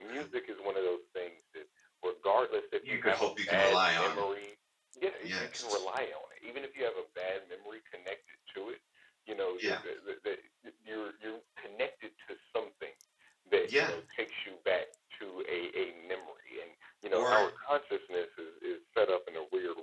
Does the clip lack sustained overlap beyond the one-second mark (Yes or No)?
No